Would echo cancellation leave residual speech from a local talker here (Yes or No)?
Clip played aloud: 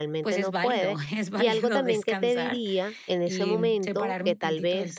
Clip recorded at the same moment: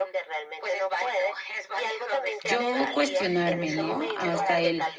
Yes